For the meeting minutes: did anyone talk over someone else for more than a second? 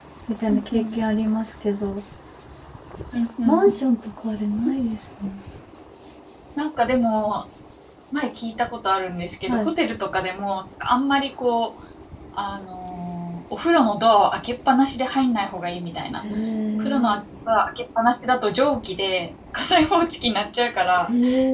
No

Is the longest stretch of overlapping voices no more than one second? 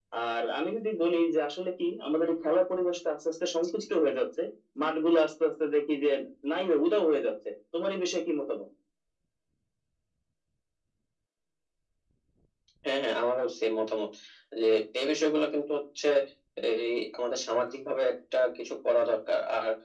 Yes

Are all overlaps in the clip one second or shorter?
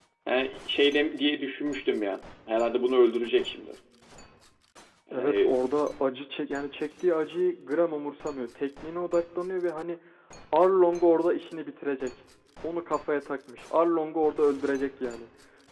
Yes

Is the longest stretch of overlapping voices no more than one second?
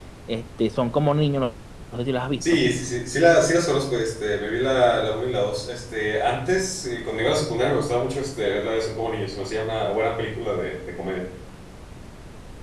Yes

